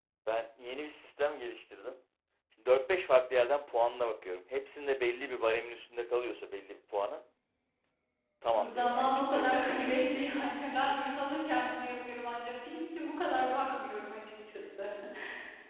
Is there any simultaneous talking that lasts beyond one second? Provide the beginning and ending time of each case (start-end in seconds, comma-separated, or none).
8.5-11.0